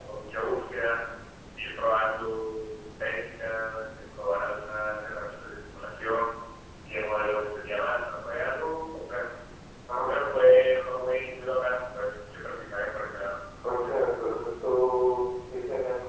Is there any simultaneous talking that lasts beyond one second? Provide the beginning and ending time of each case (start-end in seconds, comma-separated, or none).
none